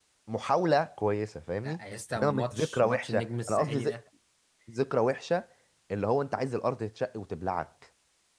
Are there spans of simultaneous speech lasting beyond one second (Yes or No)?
Yes